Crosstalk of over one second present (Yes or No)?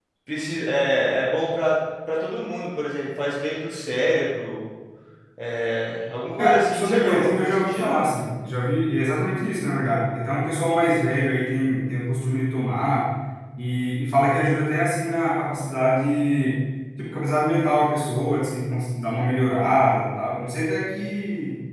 Yes